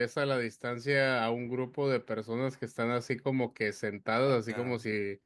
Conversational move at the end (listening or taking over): listening